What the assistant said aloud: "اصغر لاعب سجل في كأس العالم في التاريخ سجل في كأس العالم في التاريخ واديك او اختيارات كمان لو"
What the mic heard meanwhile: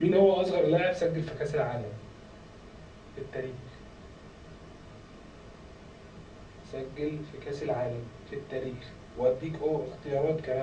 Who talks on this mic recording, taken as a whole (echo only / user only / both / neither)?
echo only